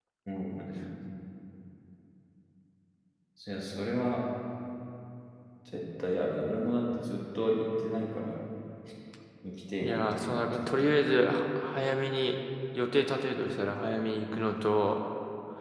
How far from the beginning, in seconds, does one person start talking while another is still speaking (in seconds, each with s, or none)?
9.8 s